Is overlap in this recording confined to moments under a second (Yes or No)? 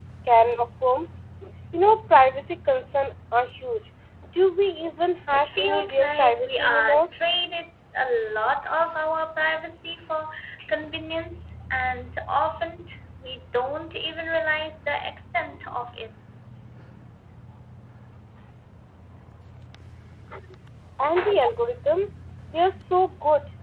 No